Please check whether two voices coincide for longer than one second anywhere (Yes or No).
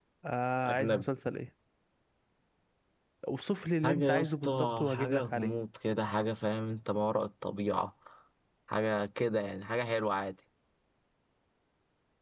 Yes